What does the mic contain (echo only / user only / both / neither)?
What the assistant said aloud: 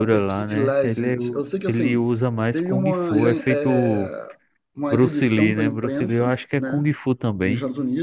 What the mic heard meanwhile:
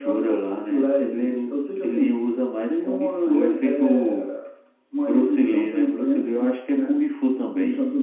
echo only